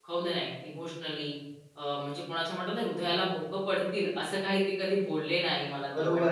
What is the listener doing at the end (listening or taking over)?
taking over